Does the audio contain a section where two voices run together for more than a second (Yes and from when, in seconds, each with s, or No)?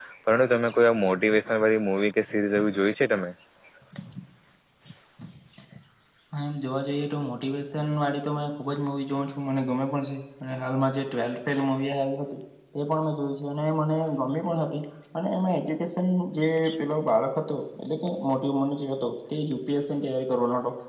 No